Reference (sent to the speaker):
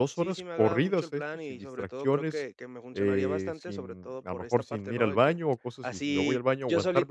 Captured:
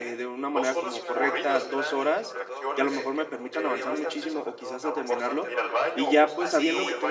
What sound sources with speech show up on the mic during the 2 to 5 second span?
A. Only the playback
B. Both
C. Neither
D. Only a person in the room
B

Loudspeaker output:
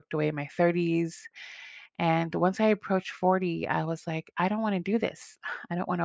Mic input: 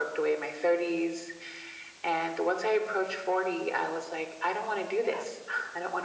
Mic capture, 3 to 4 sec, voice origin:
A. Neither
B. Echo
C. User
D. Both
B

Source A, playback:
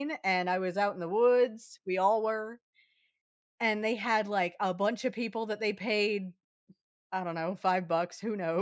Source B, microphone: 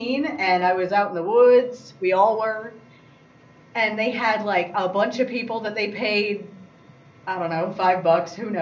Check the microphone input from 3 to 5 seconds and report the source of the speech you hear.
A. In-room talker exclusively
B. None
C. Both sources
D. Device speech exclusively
D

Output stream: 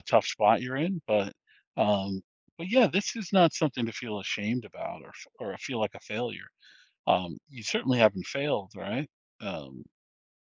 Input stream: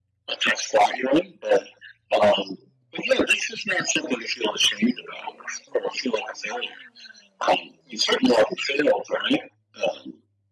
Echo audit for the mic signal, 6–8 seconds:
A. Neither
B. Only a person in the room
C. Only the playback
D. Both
C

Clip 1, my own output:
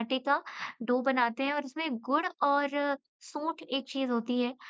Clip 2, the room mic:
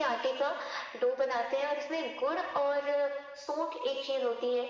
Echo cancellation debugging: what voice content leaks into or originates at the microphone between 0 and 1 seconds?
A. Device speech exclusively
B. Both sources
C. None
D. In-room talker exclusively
A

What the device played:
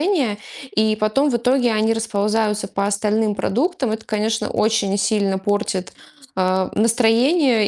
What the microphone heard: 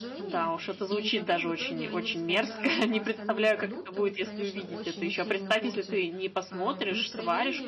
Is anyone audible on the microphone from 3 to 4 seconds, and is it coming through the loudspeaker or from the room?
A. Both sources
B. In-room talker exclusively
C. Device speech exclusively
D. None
A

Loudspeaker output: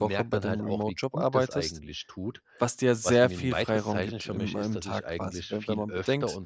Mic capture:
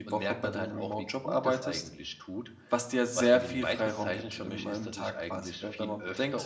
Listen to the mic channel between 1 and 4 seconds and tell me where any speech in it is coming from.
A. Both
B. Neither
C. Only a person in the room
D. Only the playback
D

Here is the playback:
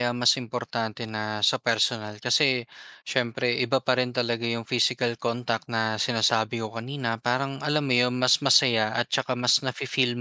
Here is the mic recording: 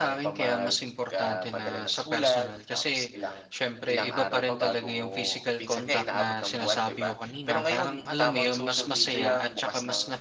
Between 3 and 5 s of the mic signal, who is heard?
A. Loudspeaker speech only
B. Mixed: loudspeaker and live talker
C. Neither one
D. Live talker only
B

